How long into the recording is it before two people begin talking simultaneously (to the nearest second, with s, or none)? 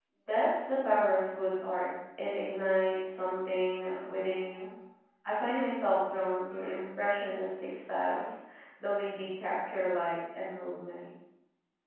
none